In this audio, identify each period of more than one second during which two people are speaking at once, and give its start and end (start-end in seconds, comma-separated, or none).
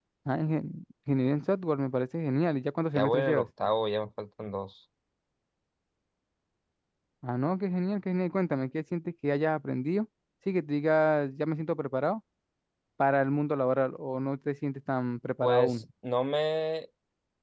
none